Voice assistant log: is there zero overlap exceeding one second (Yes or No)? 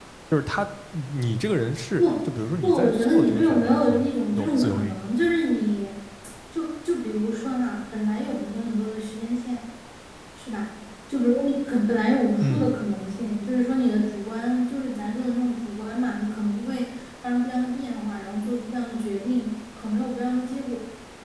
No